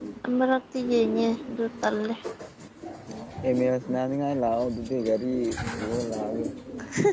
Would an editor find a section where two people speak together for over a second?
No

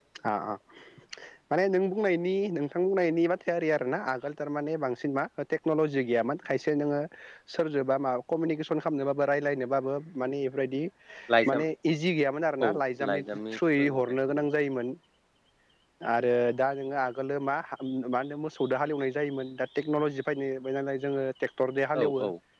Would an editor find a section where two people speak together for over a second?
Yes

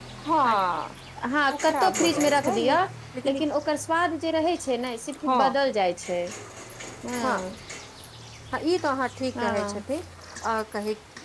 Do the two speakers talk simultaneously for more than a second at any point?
Yes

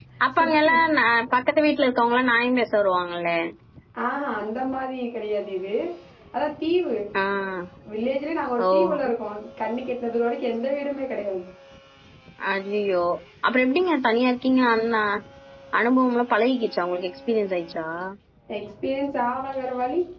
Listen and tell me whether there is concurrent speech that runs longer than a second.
No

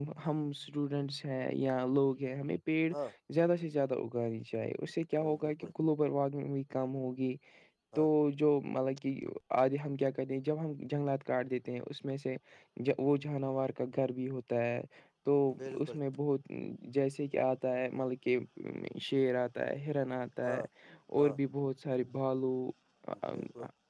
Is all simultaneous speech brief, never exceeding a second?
Yes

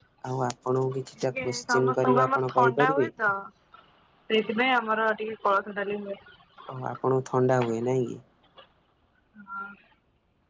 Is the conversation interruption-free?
No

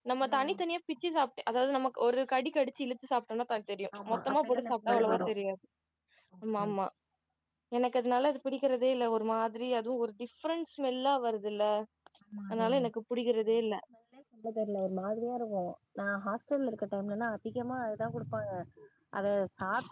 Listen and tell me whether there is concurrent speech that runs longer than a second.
Yes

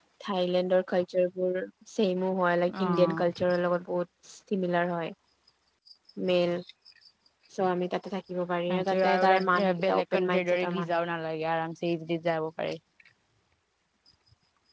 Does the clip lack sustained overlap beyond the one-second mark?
No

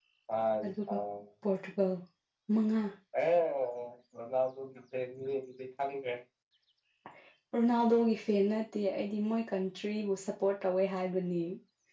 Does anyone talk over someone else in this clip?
No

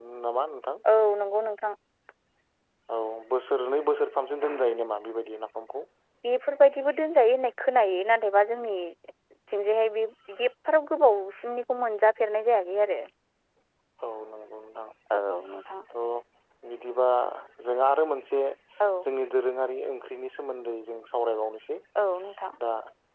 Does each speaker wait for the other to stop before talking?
Yes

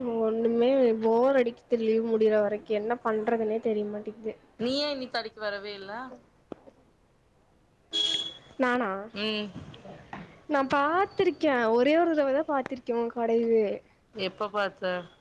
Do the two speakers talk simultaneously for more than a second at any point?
No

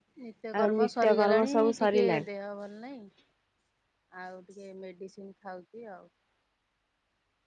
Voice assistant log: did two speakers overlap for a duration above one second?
Yes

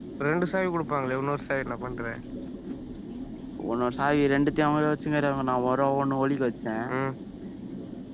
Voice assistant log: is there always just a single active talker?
Yes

